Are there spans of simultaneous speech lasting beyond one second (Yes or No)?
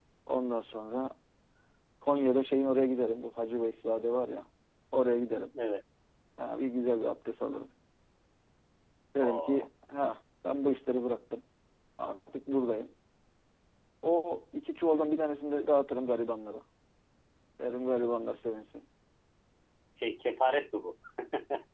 No